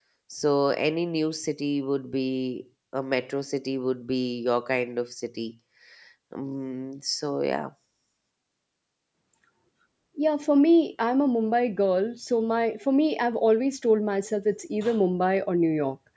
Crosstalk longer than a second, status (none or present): none